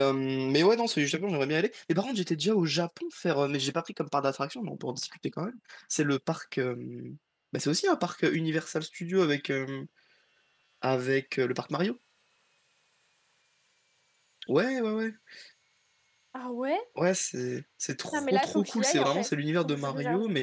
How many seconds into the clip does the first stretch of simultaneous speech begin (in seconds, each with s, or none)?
18.1 s